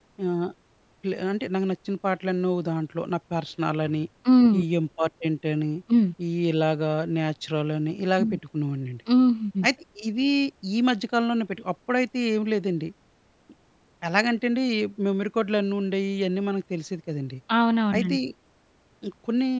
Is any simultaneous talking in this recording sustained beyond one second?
No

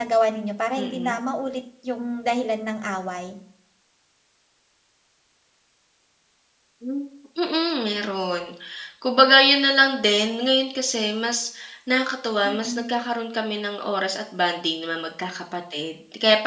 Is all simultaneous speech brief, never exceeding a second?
Yes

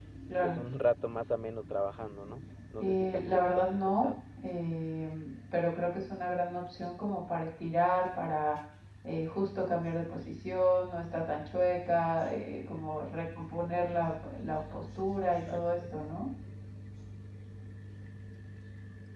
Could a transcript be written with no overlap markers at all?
No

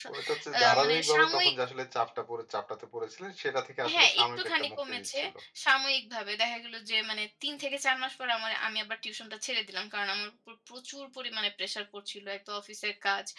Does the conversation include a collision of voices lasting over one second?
Yes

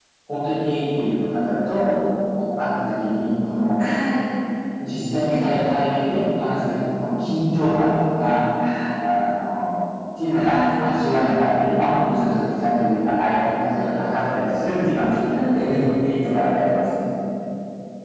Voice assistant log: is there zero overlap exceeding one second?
Yes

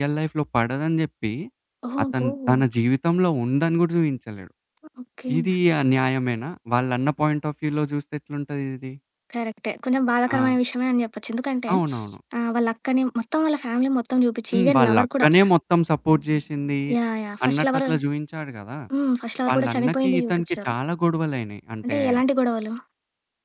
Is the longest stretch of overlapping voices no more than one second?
No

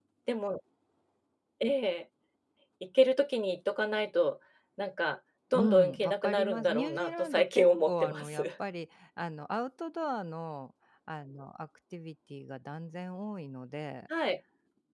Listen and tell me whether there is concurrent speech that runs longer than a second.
Yes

